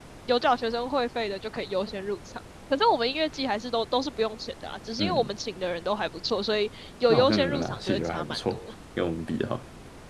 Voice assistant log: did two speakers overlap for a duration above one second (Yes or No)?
Yes